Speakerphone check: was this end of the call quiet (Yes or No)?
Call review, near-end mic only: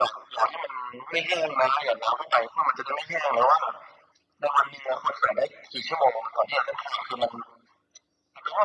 Yes